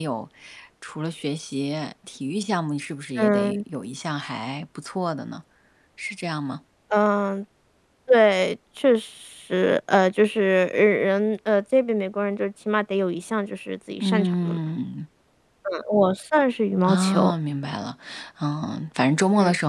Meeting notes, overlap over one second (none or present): none